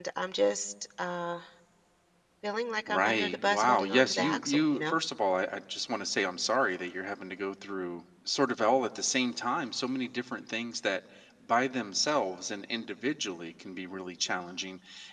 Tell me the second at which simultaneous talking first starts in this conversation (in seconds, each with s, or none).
2.9 s